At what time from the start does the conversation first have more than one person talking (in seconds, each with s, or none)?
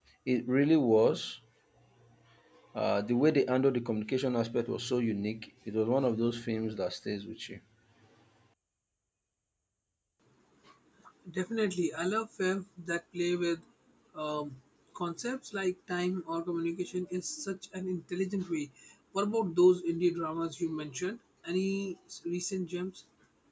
none